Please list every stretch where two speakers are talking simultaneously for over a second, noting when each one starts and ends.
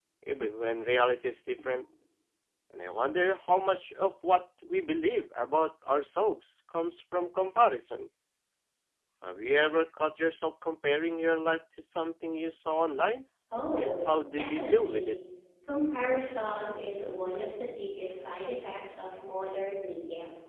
13.8-15.1

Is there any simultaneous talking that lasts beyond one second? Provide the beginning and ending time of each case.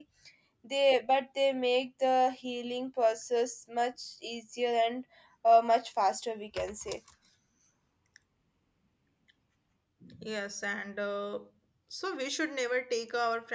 none

